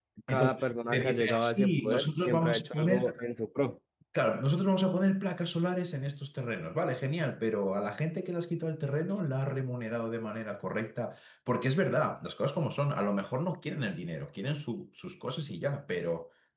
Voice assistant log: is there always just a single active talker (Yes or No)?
No